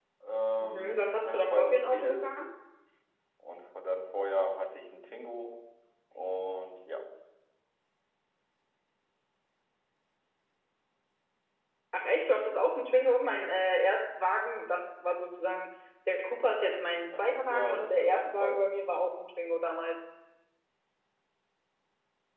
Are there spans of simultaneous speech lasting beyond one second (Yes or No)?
Yes